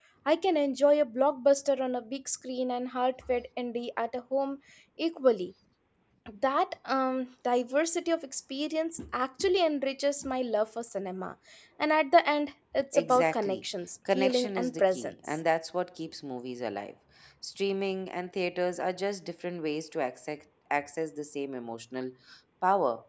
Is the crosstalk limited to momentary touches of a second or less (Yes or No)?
No